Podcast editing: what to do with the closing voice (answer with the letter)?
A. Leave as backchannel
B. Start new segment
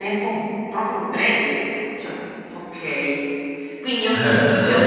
A